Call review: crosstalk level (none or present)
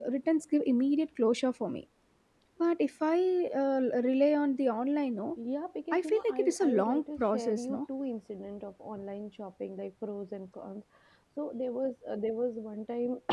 present